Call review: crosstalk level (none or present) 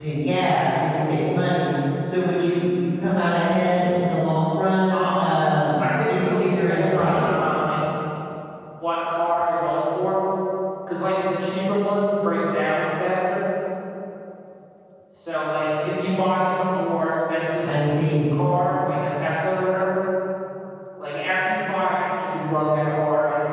present